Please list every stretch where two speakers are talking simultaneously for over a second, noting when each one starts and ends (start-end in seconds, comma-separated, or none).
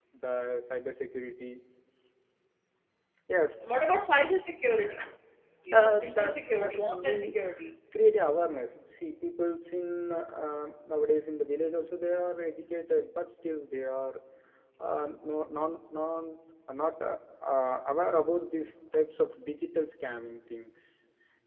5.7-7.4